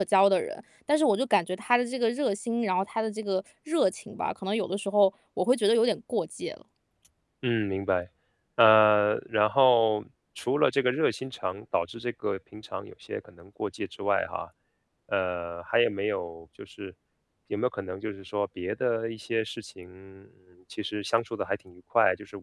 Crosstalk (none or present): none